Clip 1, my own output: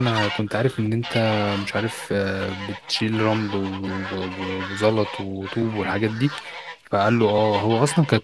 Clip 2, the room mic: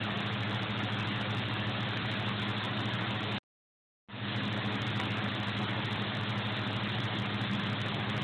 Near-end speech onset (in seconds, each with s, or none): none